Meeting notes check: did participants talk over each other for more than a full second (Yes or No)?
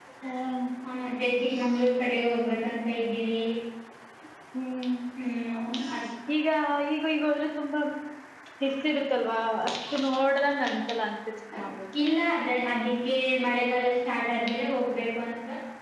No